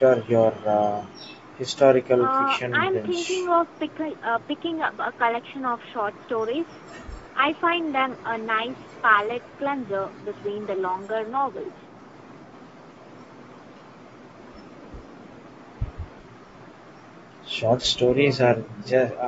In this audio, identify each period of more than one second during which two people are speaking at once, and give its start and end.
2.2-3.4

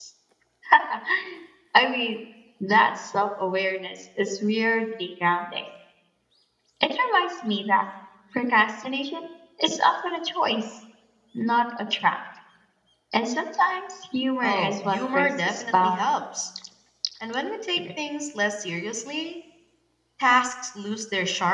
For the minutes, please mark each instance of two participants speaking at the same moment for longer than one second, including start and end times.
14.4-16.0

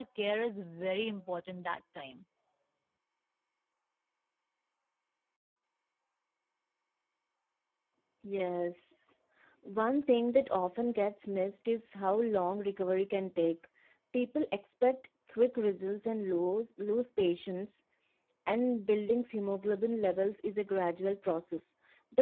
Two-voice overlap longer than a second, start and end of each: none

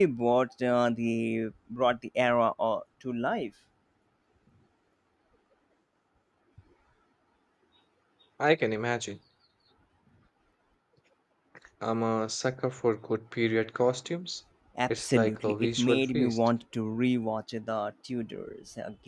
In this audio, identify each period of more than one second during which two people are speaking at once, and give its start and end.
15.0-16.4

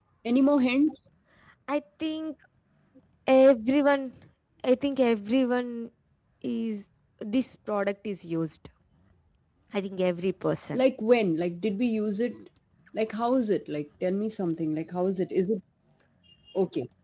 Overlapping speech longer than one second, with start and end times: none

